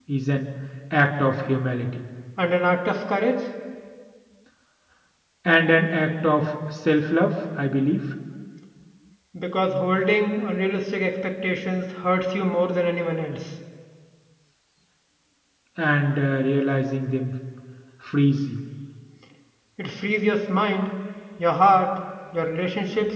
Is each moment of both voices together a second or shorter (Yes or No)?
Yes